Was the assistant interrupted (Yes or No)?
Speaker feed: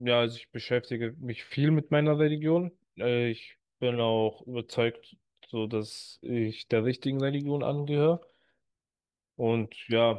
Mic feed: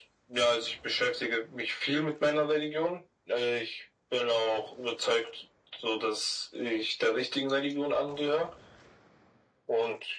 No